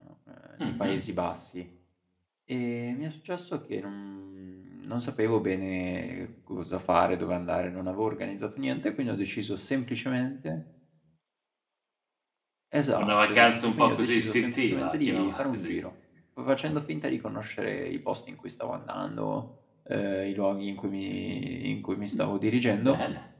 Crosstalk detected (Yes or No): Yes